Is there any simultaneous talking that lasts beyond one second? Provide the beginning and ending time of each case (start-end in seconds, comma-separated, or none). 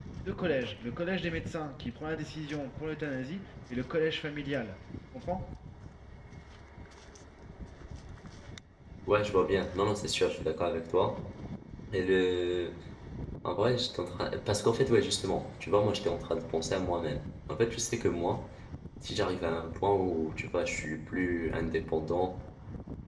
none